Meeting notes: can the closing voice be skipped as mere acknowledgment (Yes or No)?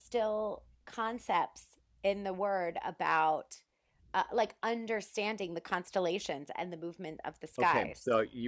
No